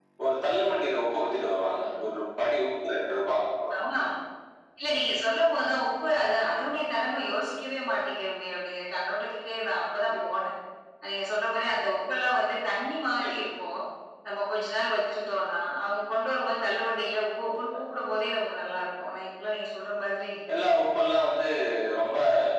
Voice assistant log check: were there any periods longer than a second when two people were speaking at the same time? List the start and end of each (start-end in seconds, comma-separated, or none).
none